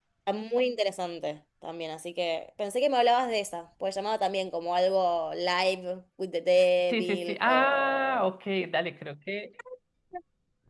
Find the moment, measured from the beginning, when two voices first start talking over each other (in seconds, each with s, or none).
6.9 s